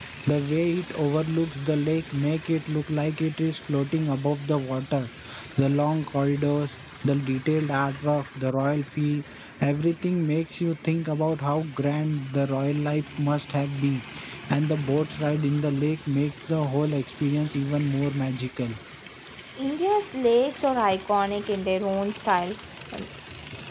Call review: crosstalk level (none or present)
none